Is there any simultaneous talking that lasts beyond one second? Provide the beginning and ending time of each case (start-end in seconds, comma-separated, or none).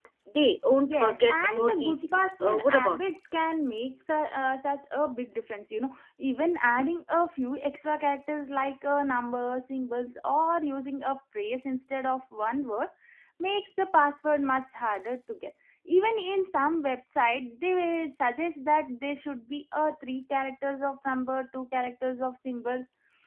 0.8-3.0